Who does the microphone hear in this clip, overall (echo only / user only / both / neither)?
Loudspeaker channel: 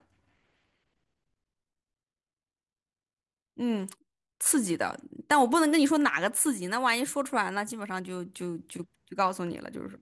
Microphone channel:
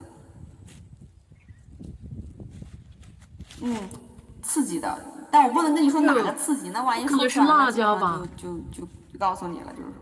both